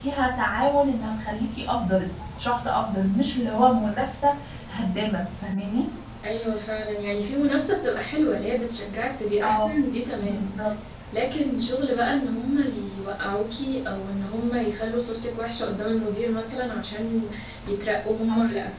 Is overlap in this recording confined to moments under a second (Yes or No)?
Yes